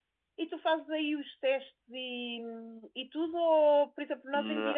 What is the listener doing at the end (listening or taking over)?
listening